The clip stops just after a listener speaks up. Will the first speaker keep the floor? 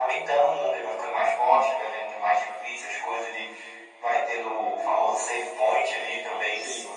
Yes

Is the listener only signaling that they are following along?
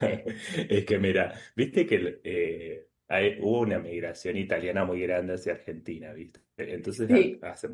Yes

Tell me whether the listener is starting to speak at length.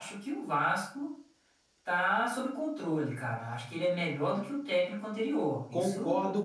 Yes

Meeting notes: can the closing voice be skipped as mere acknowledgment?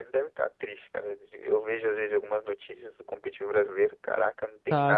No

